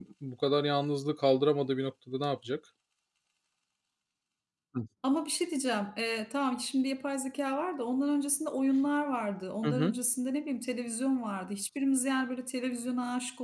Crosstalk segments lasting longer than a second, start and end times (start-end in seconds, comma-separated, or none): none